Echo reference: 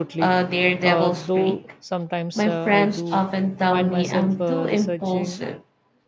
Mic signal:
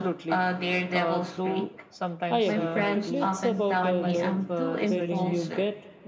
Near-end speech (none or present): present